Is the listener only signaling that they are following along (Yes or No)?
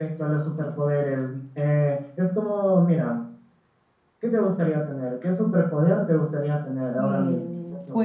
No